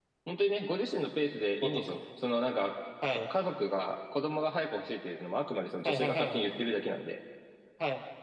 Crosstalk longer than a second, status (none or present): none